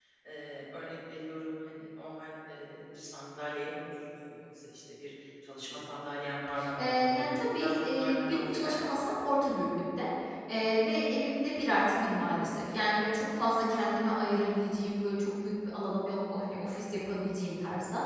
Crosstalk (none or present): present